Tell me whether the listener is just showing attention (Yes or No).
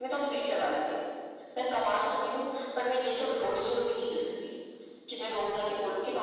No